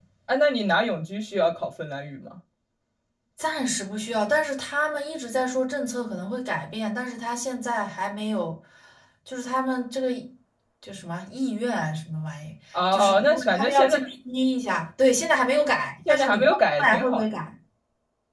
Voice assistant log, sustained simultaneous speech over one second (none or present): present